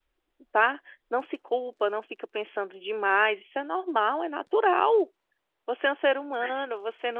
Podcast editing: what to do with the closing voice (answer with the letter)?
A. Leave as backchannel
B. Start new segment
A